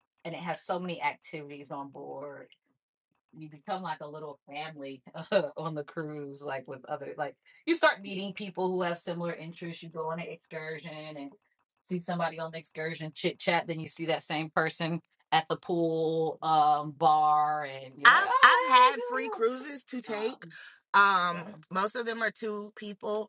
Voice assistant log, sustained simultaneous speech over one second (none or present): present